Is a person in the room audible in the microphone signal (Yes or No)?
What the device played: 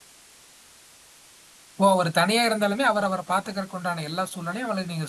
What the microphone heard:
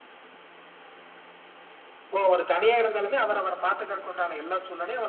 No